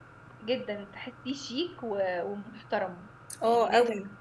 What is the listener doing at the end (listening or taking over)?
listening